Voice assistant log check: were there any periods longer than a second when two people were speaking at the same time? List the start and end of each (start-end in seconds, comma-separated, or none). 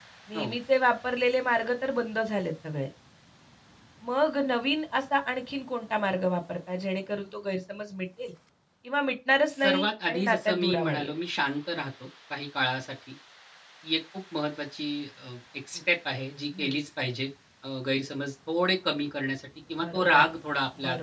9.6-11.1